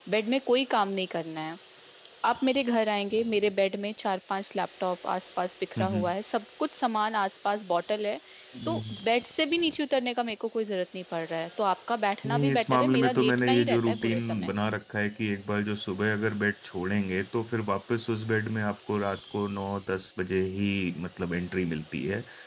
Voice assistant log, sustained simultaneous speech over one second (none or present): present